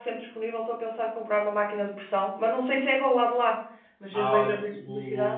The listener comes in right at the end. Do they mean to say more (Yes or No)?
Yes